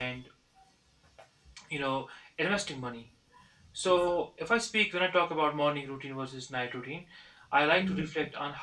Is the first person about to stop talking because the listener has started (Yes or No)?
No